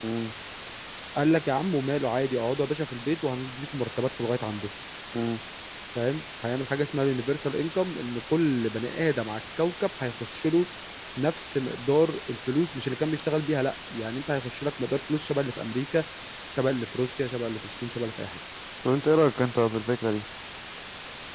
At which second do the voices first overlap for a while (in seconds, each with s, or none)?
none